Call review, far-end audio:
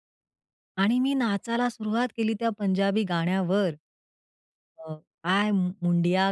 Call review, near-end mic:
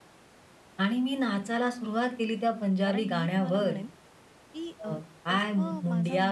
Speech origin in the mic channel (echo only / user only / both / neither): both